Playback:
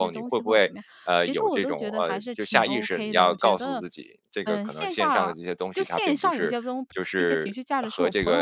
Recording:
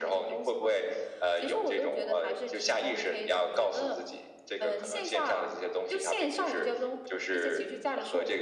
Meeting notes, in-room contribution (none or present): none